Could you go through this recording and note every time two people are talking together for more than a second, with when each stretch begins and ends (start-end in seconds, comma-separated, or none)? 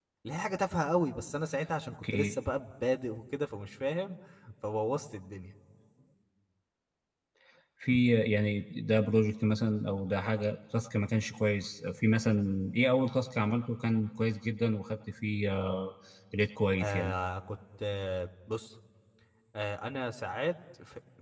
none